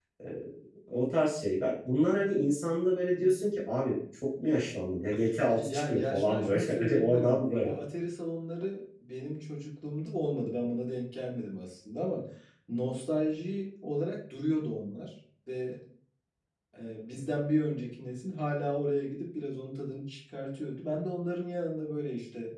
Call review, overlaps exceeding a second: present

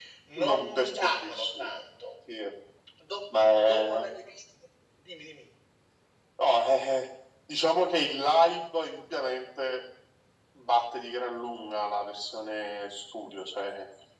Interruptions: present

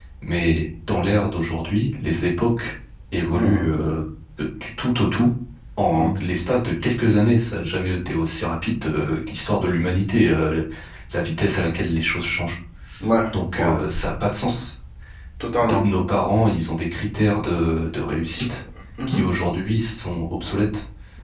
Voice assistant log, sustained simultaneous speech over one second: none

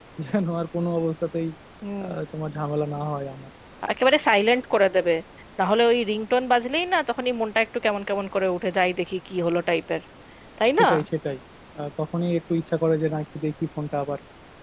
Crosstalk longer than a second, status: none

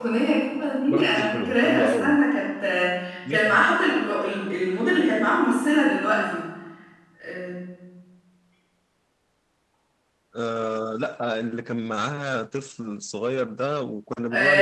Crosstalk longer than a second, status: present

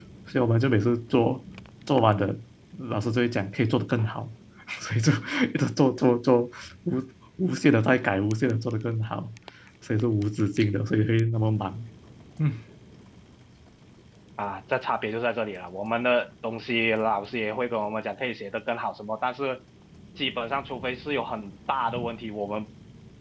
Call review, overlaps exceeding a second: none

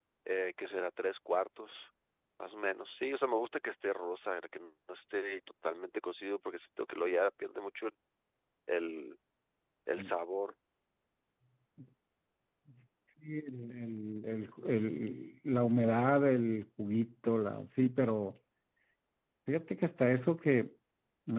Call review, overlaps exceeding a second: none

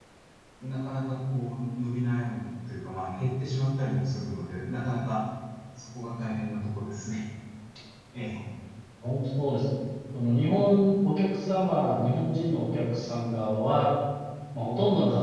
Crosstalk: none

